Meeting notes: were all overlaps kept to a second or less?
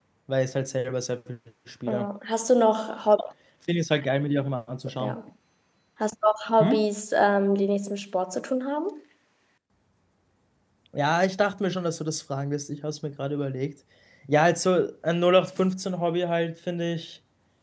Yes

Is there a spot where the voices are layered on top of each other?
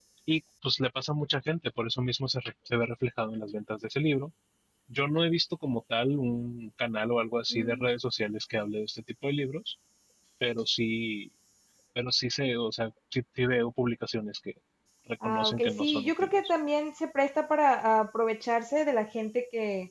Yes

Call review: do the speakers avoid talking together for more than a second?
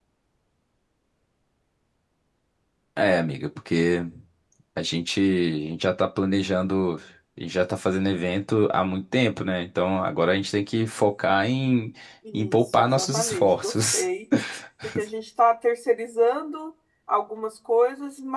No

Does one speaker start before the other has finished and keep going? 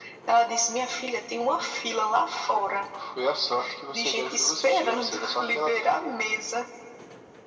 Yes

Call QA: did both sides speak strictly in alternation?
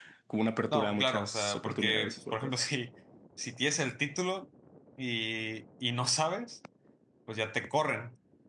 No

